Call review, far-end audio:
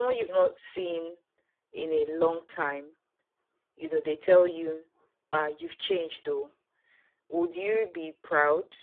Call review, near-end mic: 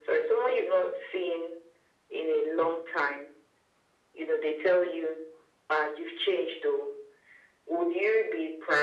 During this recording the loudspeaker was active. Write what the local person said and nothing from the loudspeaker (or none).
none